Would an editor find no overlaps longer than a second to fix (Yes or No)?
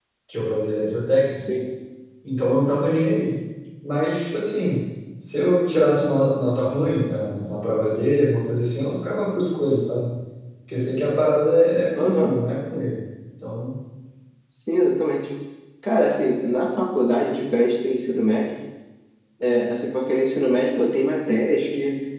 Yes